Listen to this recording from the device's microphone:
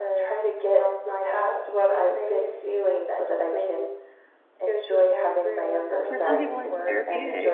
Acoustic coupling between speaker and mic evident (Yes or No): Yes